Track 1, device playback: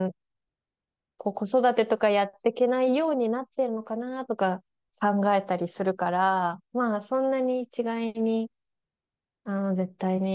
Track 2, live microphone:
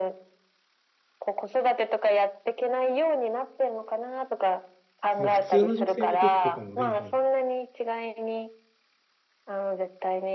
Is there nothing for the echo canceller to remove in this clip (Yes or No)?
No